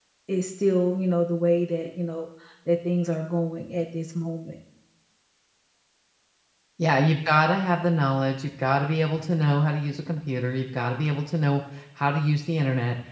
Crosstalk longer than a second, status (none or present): none